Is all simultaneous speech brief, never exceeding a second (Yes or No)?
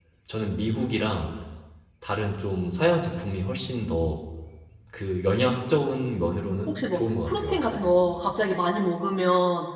No